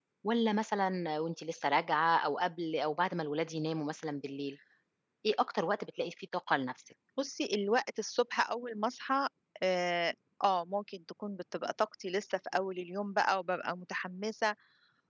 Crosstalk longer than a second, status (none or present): none